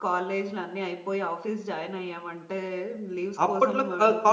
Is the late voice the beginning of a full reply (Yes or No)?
Yes